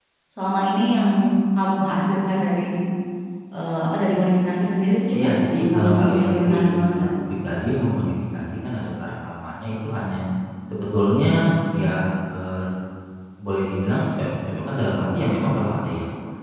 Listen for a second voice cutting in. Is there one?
Yes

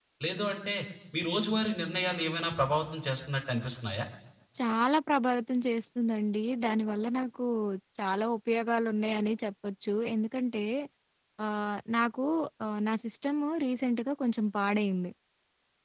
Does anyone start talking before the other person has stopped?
No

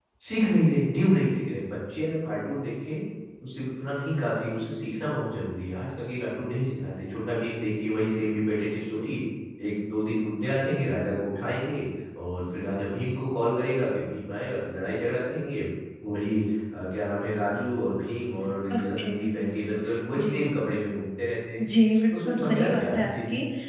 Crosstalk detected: Yes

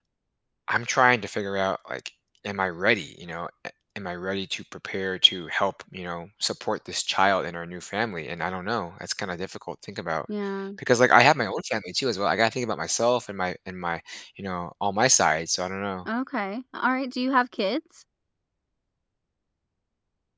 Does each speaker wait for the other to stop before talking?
Yes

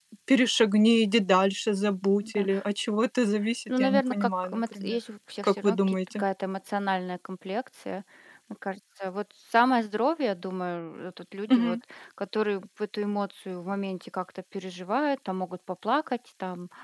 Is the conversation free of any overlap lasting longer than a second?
No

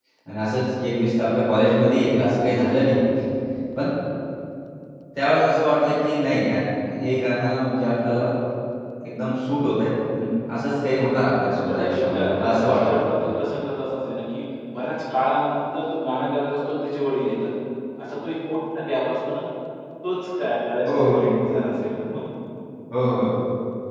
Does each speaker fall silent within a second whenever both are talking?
No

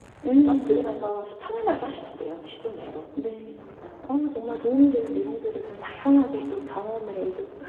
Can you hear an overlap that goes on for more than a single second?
No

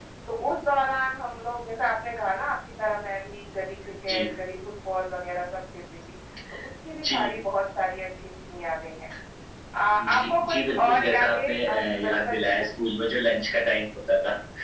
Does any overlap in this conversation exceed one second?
Yes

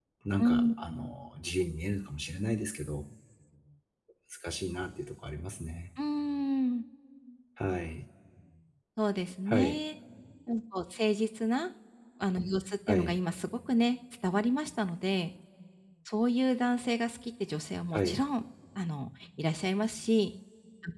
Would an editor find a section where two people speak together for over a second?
No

